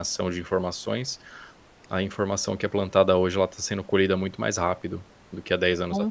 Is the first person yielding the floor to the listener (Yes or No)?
Yes